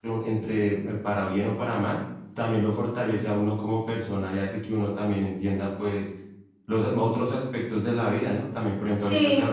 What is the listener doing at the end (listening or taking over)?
listening